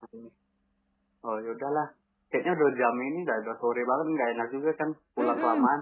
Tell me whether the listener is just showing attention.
No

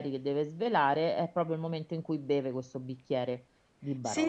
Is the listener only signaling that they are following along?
No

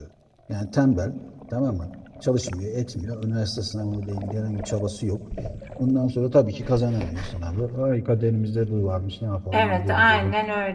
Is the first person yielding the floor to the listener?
Yes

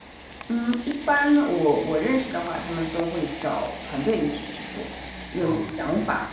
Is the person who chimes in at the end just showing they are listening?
Yes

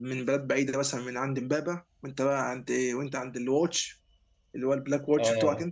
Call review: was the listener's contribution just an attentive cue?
No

